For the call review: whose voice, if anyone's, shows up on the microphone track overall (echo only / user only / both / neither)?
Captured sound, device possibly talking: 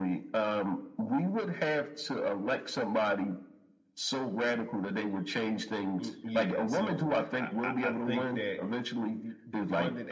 both